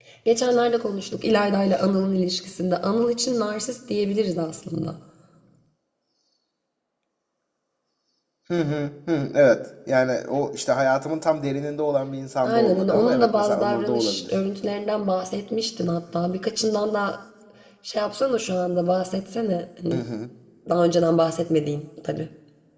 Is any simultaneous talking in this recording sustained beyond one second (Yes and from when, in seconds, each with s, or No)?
Yes, from 12.4 s